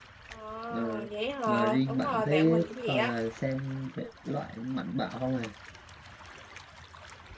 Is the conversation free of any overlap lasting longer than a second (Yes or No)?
No